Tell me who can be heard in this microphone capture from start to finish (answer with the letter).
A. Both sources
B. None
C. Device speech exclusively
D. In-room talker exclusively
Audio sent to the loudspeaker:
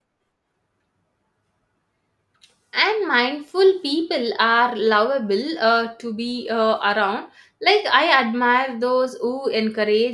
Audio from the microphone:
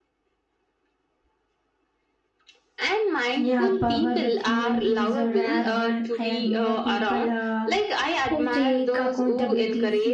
A